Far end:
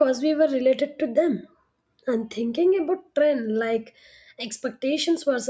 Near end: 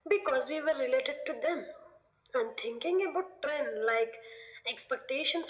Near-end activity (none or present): none